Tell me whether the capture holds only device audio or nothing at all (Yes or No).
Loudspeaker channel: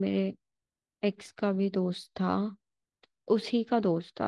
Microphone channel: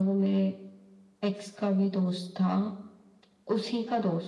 Yes